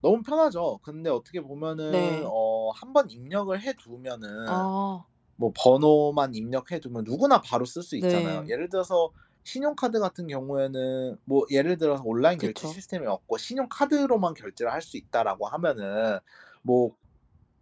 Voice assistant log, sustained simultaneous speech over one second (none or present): none